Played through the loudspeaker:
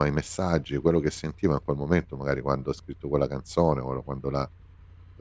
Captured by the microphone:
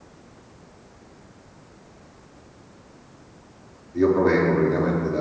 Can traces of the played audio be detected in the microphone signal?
No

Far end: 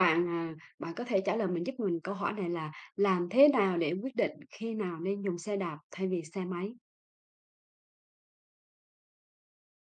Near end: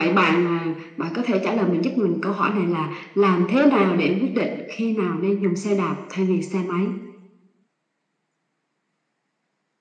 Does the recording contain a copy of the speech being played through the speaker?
Yes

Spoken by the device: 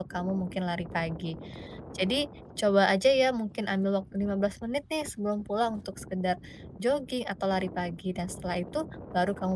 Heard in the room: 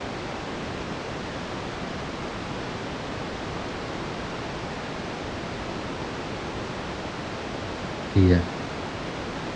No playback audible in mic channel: Yes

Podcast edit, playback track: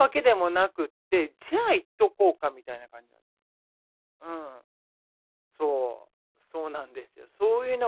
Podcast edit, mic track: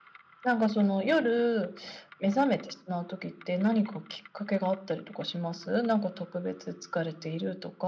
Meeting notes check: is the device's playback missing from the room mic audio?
Yes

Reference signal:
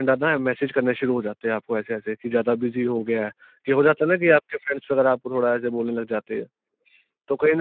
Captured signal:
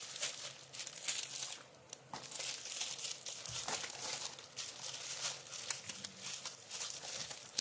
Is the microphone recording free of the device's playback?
Yes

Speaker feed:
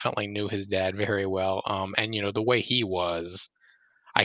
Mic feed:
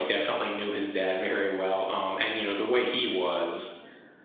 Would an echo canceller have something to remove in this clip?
Yes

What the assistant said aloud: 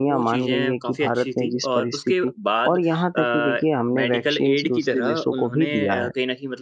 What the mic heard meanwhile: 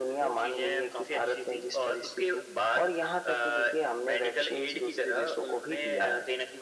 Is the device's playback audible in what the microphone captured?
Yes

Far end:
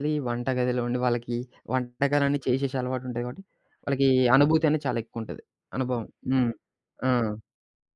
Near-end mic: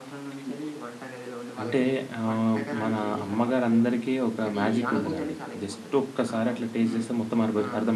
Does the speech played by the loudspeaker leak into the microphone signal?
Yes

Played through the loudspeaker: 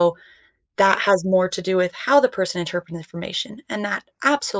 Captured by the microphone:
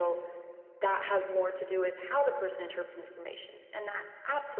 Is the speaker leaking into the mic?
Yes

